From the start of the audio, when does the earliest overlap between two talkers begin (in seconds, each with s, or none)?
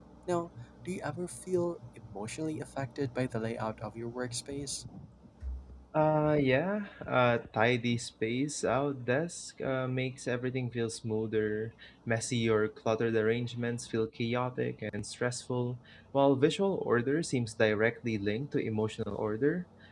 none